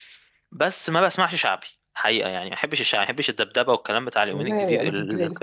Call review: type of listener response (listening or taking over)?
taking over